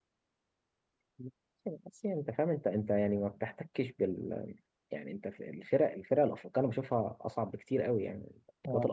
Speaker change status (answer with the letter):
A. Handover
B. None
B